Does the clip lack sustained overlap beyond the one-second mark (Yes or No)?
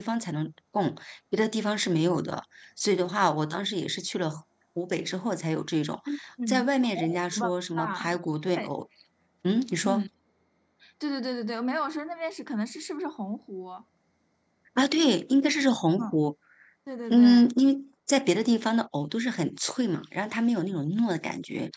No